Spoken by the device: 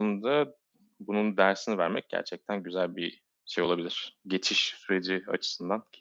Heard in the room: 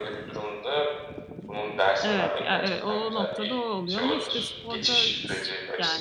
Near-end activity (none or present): present